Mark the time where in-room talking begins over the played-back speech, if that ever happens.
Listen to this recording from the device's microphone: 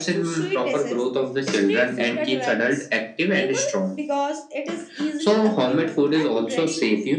none

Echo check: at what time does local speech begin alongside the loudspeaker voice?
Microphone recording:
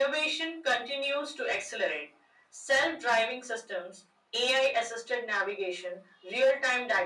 none

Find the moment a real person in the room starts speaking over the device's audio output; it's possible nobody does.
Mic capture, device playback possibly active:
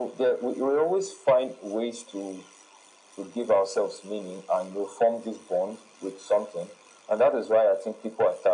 none

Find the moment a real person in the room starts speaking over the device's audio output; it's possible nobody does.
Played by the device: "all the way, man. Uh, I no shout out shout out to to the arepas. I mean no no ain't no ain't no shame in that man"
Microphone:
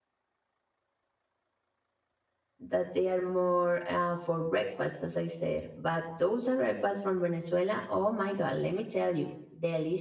2.6 s

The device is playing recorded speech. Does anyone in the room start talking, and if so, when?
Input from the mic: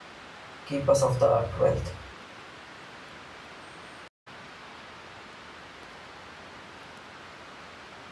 0.6 s

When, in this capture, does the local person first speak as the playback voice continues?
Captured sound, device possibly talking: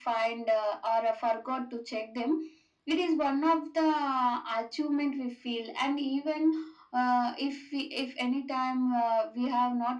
none

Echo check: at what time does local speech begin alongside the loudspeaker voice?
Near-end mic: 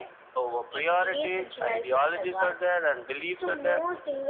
none

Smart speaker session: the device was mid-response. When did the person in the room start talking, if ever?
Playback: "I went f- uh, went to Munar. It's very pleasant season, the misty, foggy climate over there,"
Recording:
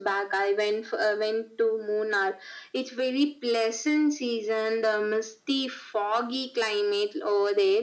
none

